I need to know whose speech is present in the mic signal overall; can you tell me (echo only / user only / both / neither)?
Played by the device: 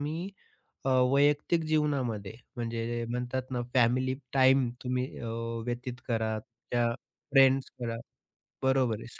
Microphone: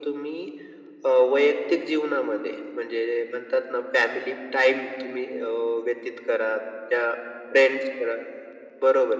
echo only